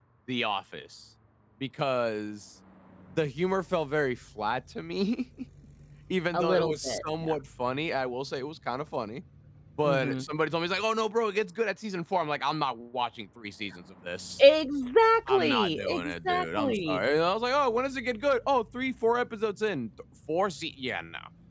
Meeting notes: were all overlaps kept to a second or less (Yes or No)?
No